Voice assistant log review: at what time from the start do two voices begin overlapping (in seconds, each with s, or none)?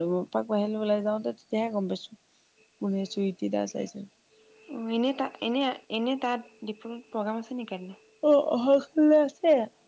none